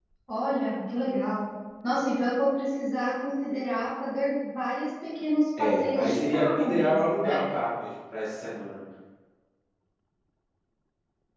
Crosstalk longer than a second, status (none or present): present